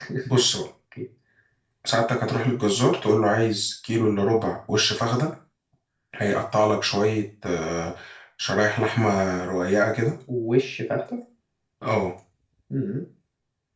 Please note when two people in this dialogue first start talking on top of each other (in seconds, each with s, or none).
none